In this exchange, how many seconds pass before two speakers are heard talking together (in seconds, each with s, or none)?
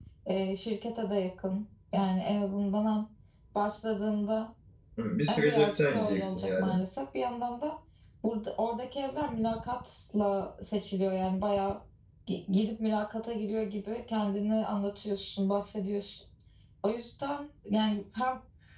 5.3 s